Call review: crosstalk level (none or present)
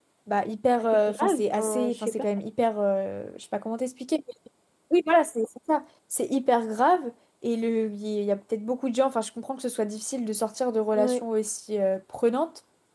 present